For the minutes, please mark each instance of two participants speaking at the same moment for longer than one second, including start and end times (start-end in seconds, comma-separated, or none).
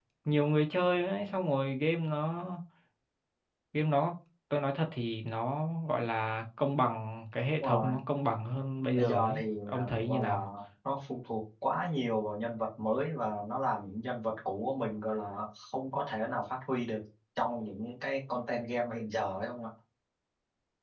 9.0-10.3